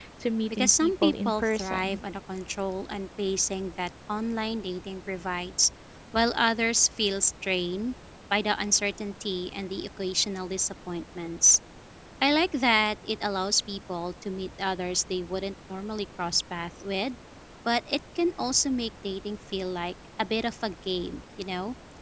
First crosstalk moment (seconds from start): 1 s

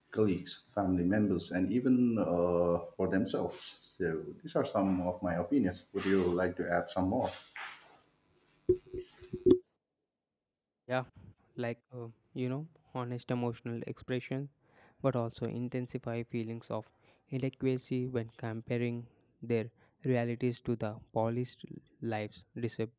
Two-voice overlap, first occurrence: none

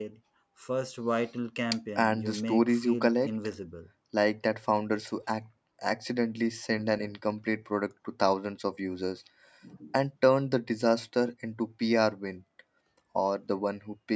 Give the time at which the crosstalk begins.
2 s

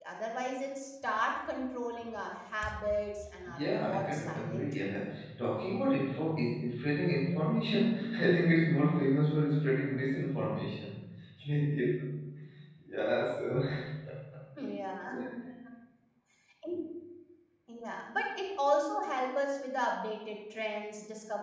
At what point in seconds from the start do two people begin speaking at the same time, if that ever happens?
3 s

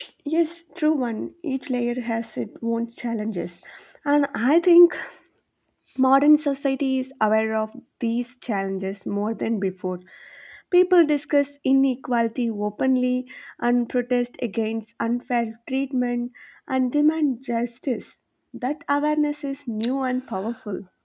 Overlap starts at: none

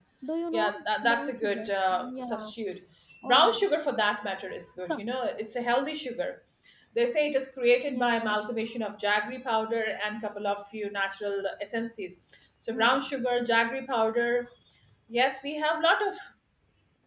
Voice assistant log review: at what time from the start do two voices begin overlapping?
1 s

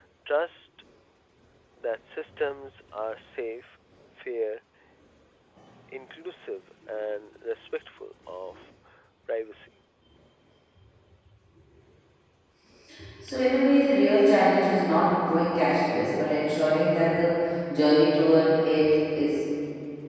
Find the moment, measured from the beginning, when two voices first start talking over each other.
none

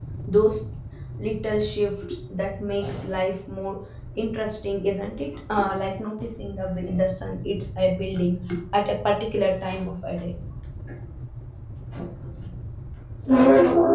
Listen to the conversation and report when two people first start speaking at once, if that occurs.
none

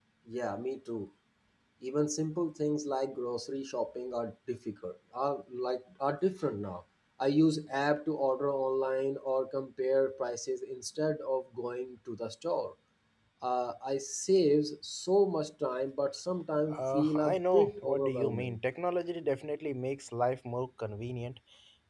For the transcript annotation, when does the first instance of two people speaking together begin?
17 s

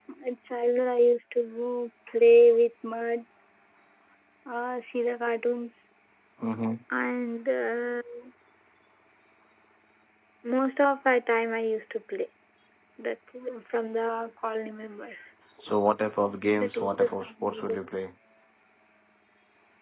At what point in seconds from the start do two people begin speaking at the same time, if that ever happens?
17 s

